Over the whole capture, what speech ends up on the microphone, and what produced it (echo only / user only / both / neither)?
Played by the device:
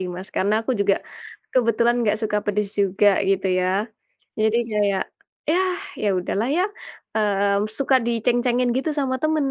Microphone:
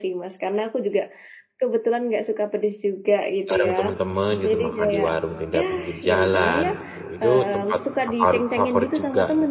both